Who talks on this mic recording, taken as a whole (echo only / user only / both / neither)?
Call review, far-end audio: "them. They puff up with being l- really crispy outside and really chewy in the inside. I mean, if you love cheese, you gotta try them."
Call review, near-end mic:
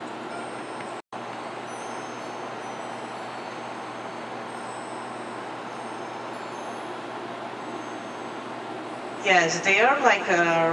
user only